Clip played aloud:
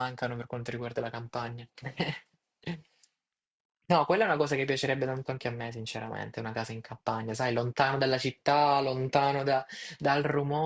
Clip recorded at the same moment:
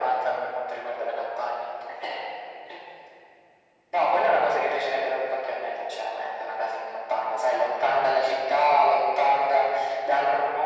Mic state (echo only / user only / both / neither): echo only